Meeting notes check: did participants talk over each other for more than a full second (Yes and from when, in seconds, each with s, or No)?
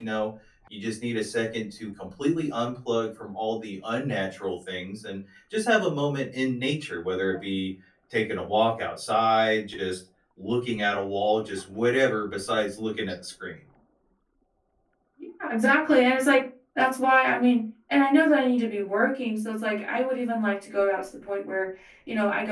No